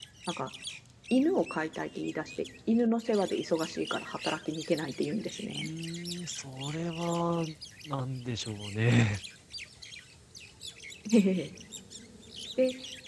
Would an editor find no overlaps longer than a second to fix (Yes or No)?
Yes